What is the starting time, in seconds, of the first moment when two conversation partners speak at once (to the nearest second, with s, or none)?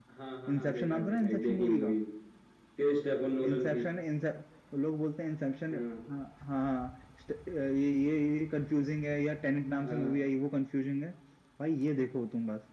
1 s